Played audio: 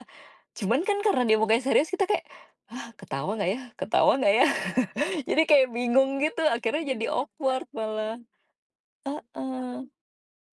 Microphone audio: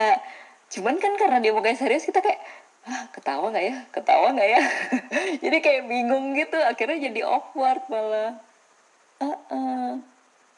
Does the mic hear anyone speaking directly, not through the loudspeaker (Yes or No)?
No